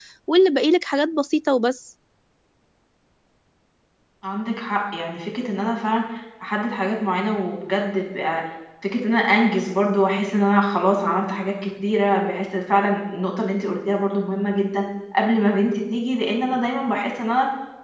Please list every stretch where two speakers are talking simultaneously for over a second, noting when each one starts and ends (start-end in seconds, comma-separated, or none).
none